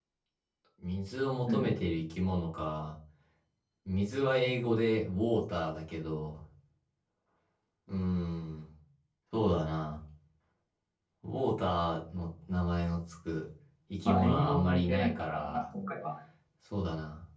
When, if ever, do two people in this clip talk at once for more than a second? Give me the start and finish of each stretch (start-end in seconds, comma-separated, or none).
14.1-15.7